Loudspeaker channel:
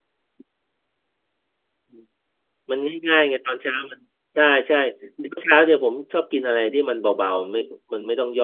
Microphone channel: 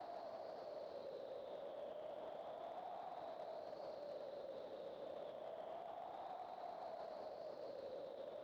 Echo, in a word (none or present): none